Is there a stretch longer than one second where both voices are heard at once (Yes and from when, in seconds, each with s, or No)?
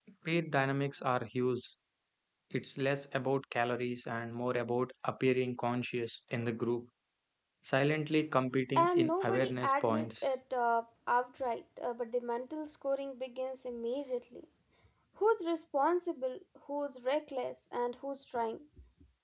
Yes, from 8.8 s